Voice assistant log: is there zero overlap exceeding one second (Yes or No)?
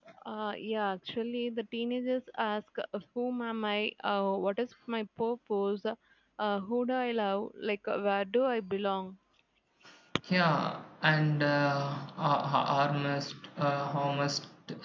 Yes